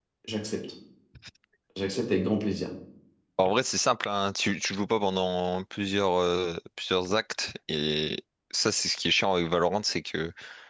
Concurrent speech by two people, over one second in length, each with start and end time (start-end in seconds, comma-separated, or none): none